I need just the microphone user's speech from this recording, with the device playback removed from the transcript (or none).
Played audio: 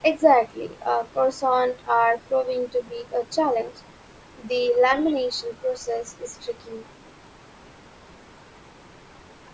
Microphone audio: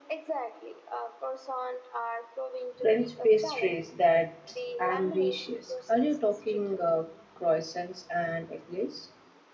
French pastries that's ambitious. Are you talking uh, croissants and eclairs?